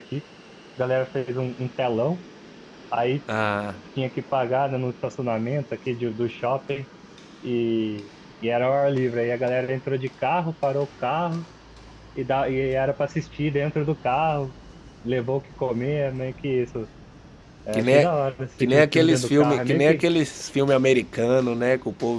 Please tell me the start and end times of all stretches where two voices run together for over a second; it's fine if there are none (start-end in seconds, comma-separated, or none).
18.6-20.0